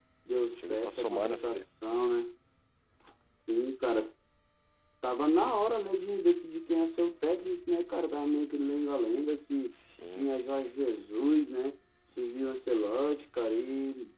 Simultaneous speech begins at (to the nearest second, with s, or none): 1 s